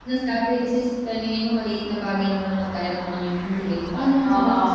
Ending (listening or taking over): listening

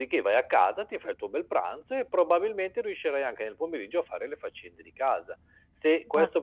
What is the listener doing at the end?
listening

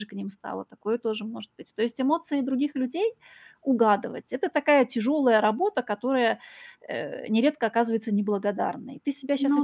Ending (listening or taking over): listening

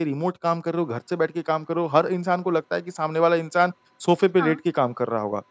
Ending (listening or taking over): listening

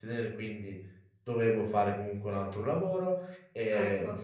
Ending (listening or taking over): listening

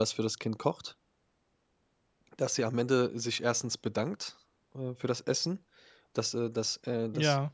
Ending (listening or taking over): listening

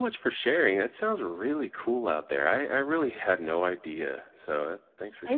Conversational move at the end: taking over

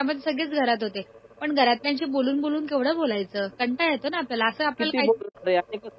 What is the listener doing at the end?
taking over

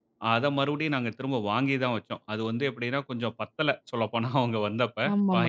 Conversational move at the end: taking over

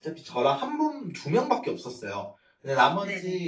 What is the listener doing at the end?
listening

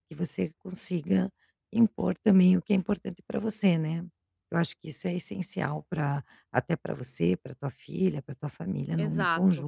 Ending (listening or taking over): taking over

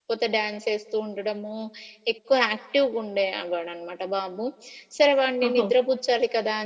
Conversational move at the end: listening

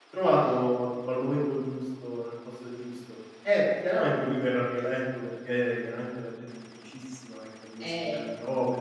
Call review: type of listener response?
listening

